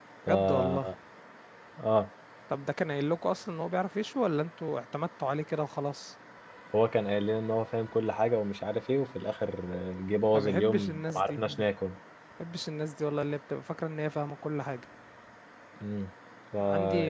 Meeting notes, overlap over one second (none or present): present